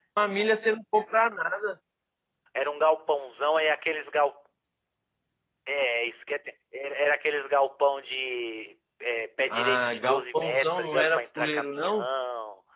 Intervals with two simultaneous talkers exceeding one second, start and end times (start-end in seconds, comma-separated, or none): 9.5-12.1